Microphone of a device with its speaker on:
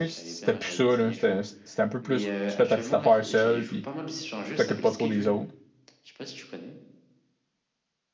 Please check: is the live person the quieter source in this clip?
No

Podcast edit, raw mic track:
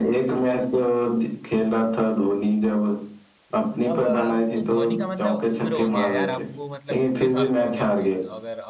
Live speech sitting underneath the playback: Yes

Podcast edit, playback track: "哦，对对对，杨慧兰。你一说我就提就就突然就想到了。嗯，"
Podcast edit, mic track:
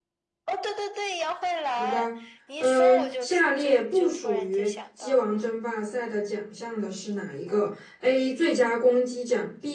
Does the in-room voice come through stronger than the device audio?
Yes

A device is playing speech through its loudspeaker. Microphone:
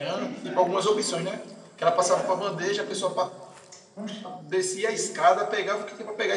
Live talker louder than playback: Yes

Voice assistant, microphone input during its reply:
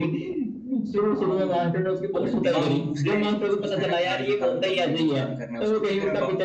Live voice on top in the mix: No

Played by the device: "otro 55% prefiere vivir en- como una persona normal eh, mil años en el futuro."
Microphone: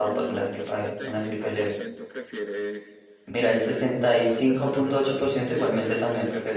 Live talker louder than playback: Yes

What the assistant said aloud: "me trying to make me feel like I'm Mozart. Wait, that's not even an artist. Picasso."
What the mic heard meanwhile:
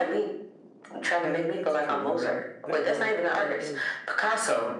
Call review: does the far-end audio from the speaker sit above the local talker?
Yes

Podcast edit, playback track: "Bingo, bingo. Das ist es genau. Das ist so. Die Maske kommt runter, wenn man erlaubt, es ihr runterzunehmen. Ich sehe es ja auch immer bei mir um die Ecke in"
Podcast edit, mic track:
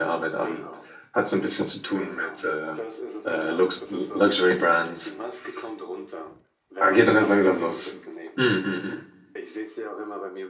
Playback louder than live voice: No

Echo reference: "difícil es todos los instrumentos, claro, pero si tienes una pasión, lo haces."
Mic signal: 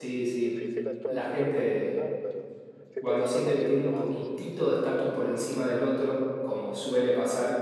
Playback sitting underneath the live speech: Yes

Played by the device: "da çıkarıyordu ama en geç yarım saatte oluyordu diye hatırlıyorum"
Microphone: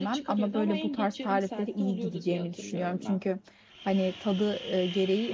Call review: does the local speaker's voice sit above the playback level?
Yes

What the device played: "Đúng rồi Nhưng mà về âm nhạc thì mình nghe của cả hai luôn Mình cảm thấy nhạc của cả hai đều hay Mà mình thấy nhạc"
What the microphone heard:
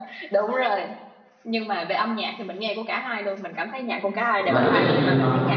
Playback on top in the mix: No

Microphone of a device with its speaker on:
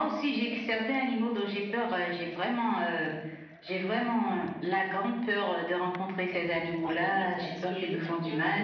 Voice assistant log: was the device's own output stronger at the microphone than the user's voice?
Yes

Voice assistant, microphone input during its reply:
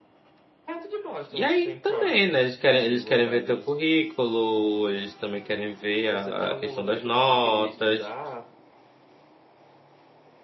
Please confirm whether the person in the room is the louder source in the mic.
Yes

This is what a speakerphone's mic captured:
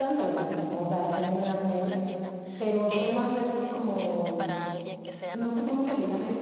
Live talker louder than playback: Yes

